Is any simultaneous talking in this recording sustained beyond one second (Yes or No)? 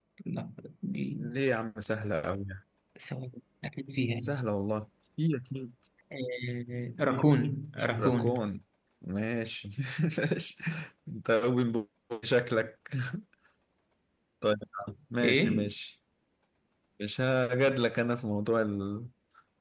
No